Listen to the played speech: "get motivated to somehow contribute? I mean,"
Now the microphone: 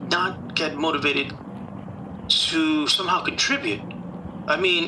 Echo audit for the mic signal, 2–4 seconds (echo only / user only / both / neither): echo only